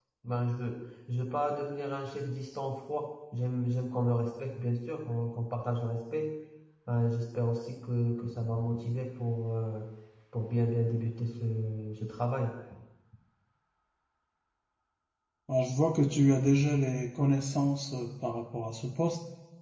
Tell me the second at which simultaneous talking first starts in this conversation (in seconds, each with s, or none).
none